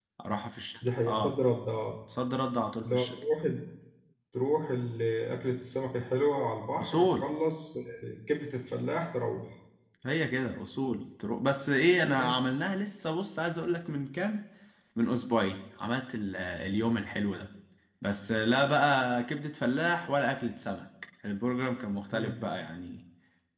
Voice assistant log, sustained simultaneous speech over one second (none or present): none